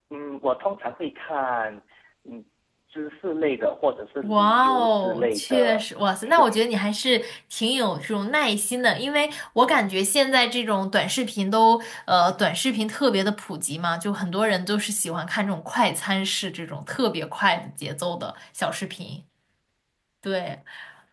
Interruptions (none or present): present